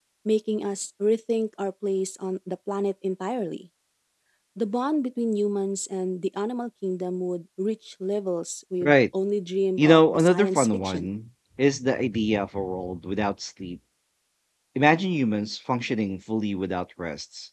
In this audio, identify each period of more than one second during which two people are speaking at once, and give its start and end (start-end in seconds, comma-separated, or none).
9.8-11.1